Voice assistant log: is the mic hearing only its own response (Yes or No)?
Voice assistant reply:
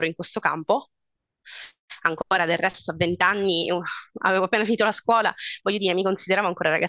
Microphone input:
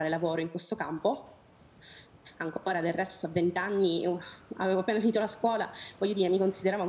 Yes